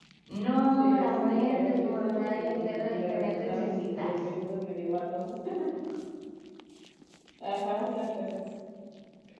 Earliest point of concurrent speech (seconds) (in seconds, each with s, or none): 0.8 s